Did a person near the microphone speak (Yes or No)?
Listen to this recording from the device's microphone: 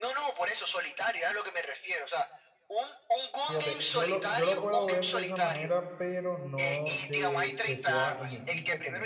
Yes